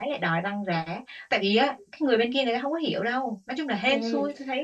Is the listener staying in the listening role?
No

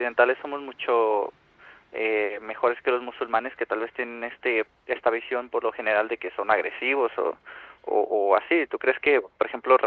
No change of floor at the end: Yes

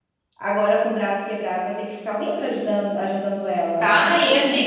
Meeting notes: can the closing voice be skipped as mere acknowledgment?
No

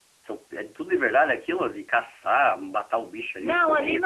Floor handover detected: Yes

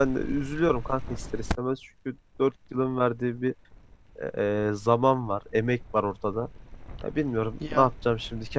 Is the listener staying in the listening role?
Yes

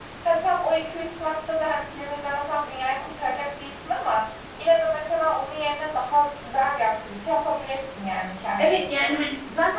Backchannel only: No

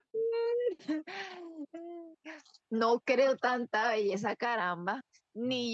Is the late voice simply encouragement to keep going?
Yes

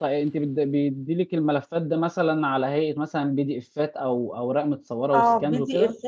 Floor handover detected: Yes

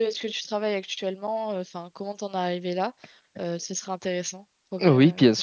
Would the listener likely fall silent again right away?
No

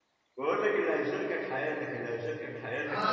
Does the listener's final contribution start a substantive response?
Yes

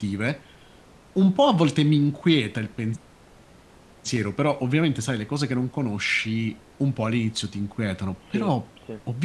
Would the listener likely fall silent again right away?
Yes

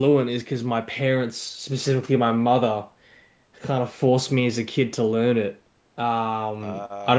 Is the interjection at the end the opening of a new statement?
No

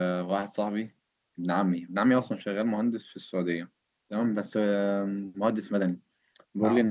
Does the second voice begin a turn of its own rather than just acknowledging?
No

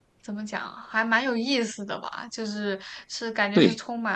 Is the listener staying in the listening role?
Yes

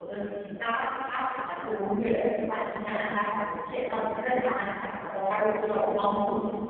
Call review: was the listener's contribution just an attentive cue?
Yes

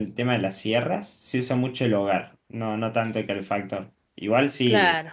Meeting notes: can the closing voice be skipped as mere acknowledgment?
Yes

